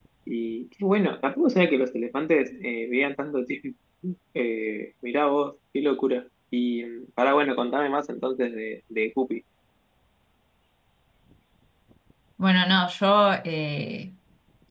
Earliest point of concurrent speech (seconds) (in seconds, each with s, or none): none